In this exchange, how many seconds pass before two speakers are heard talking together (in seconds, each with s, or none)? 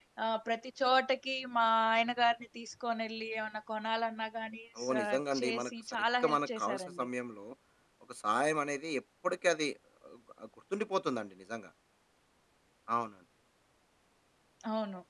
4.8 s